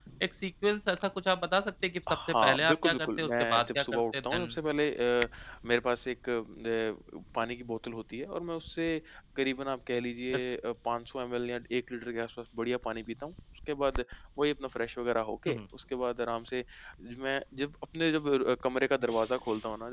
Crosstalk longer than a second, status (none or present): present